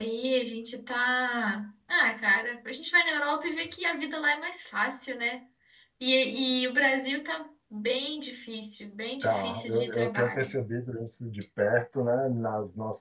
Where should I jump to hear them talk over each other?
9.2 s

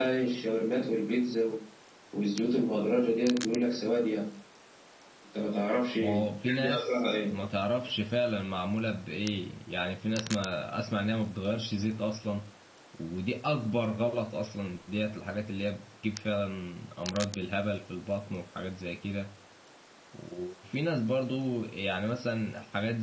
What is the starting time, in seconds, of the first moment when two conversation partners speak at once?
6.0 s

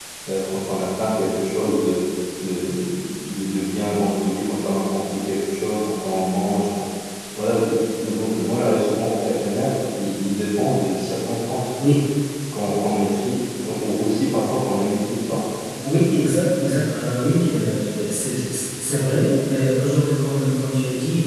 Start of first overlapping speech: none

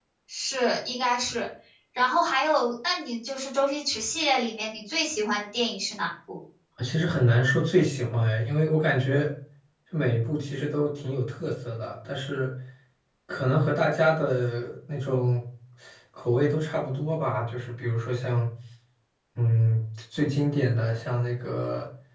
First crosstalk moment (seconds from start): none

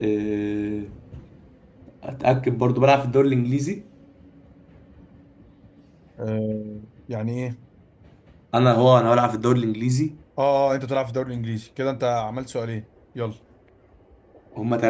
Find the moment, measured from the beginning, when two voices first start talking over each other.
none

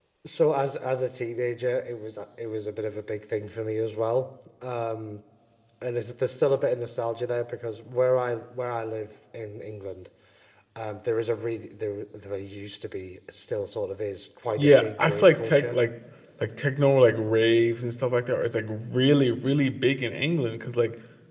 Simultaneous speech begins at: 14.6 s

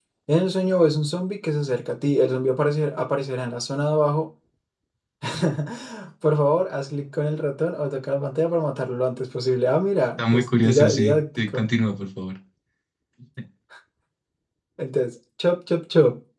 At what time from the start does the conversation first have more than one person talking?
10.2 s

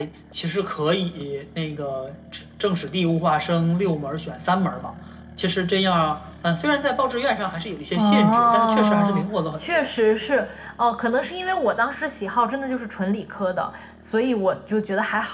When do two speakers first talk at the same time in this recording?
7.9 s

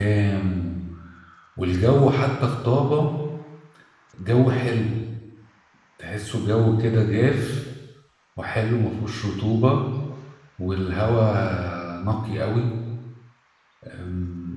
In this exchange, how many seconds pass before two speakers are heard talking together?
none

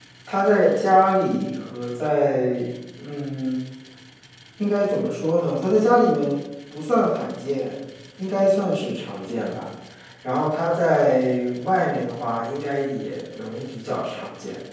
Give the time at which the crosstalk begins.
none

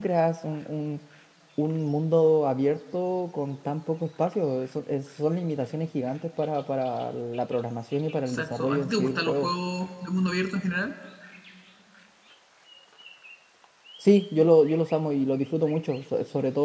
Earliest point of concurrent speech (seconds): 8.3 s

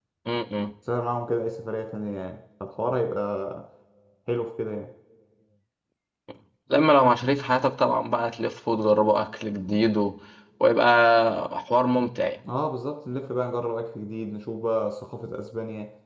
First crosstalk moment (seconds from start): none

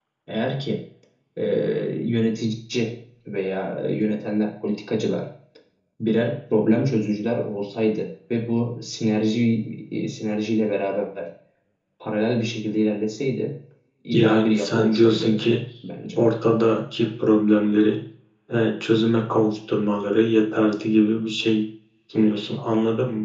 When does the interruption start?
14.1 s

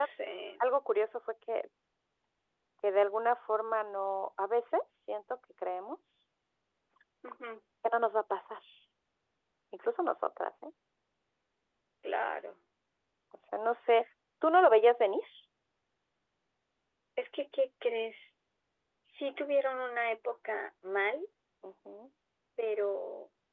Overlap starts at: none

